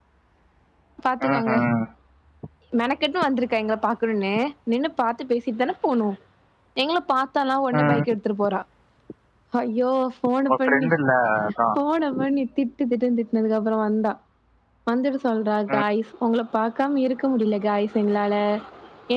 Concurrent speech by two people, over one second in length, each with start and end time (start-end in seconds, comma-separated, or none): none